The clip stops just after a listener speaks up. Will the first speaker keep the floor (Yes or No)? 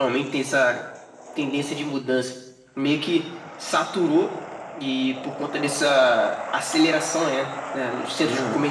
Yes